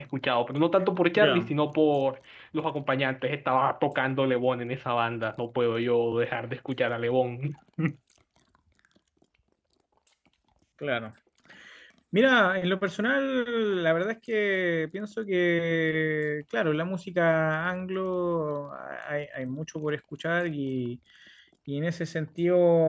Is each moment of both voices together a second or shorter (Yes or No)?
Yes